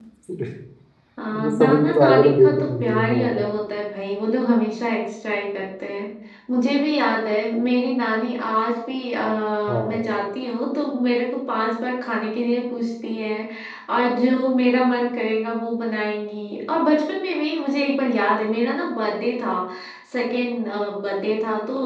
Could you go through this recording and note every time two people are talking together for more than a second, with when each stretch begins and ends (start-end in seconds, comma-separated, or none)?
1.4-3.5